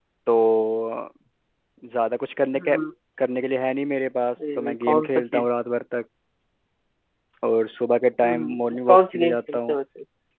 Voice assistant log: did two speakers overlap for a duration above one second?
Yes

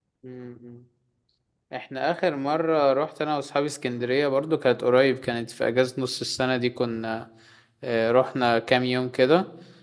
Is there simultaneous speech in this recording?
No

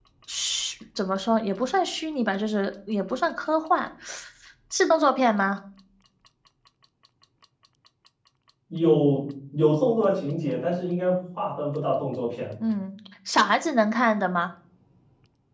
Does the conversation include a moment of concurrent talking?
No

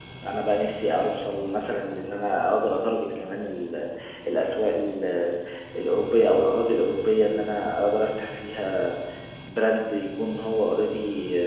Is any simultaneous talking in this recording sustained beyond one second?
No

